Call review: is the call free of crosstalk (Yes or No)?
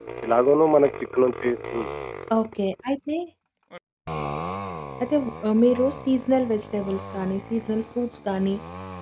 Yes